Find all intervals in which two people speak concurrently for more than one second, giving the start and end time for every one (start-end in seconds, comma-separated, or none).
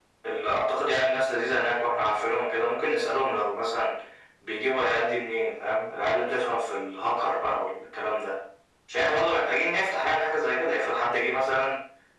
none